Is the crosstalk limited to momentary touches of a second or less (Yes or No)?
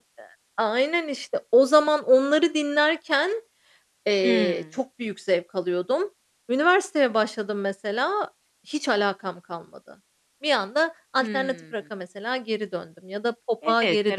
Yes